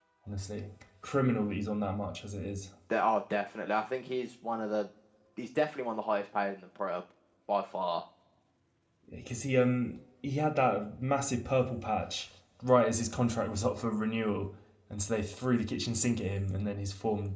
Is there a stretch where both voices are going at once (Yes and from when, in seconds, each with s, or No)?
No